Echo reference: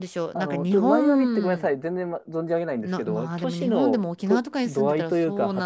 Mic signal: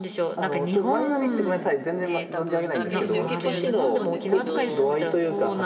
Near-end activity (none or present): present